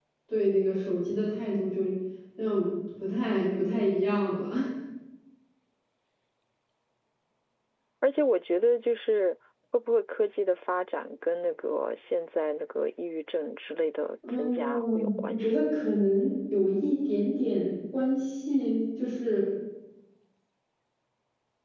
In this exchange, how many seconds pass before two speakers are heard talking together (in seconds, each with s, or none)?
14.2 s